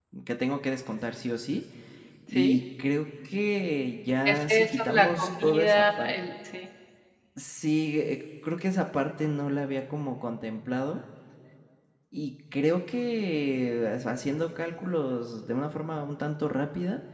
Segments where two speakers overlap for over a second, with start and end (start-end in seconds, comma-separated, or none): 4.2-6.1